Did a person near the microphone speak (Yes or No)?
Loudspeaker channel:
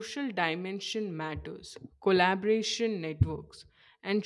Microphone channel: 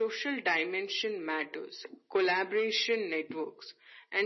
No